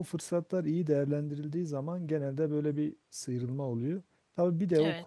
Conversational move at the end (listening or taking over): listening